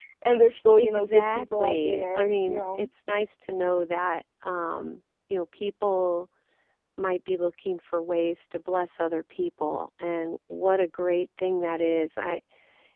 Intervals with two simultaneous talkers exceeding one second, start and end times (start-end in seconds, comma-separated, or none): 0.8-2.8